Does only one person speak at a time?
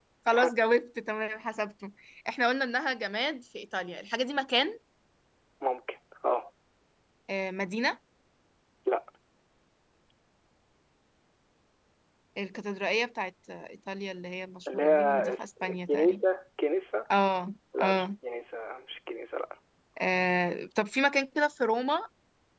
No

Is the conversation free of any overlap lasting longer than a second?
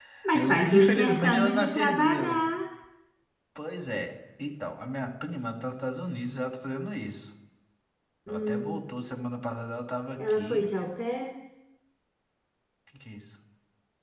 No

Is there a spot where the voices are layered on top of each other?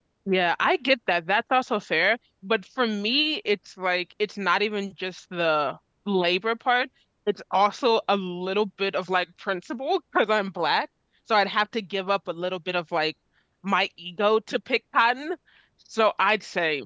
No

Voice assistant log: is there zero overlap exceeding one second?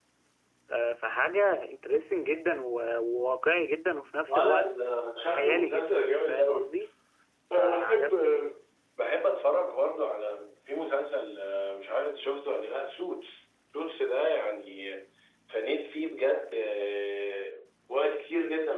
No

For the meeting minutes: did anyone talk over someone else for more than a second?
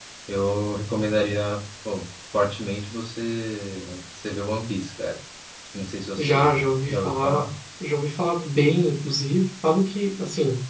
Yes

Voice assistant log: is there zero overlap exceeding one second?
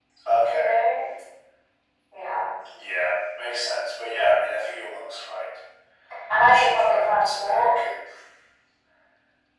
No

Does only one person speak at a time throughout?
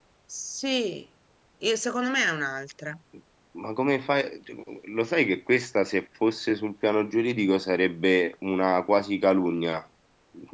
Yes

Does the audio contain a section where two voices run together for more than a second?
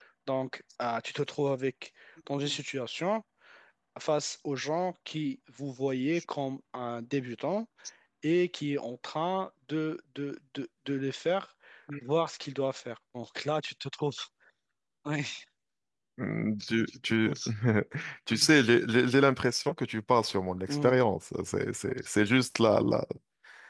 No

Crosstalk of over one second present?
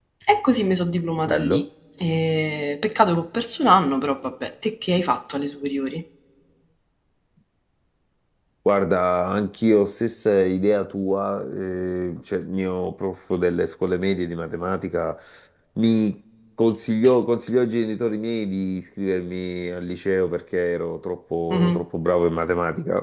No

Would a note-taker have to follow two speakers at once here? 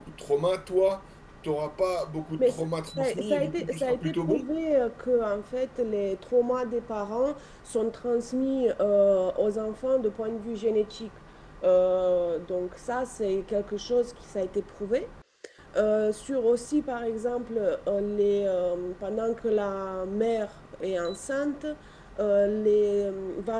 Yes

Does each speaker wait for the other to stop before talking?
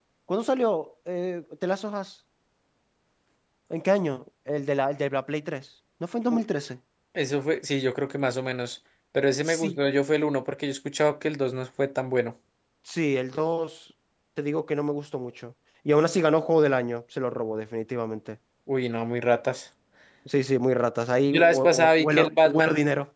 No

